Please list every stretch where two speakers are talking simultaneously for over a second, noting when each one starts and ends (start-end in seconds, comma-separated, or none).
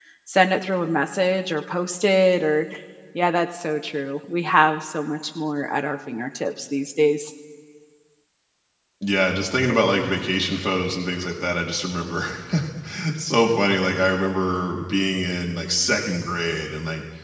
none